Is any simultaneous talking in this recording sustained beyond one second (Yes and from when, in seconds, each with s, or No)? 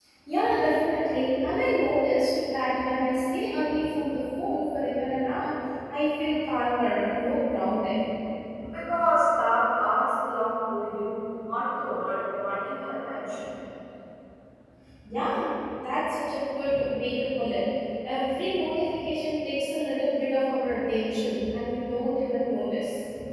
No